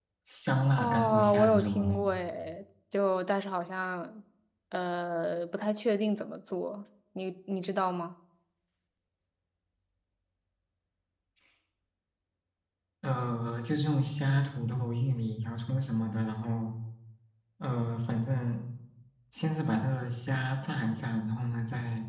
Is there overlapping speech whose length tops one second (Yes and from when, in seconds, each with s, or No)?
Yes, from 0.8 s